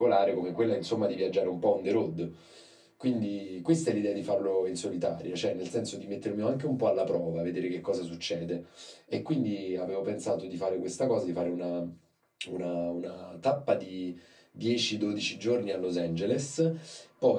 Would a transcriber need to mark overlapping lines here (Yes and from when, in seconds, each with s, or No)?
No